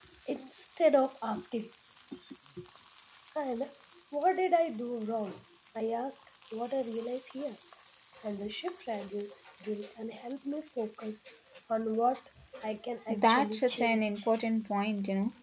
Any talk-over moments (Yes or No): Yes